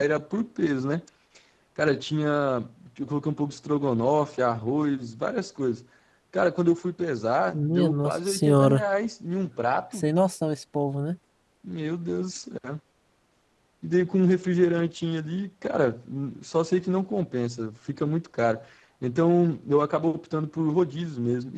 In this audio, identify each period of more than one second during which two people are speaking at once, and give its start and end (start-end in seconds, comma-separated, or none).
7.5-8.8